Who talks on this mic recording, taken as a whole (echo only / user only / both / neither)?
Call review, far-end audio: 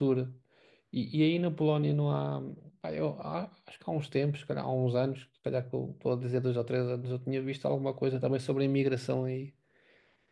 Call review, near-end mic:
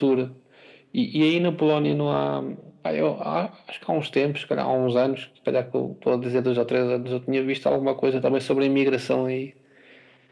echo only